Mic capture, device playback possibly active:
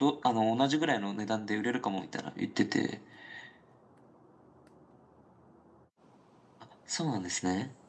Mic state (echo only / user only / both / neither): user only